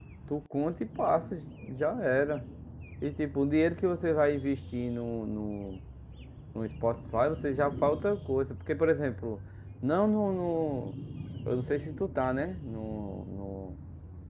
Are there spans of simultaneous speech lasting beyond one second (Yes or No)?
No